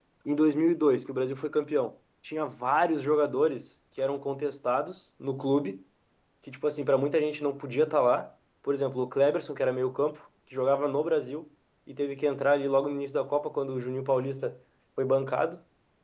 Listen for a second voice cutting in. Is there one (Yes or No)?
No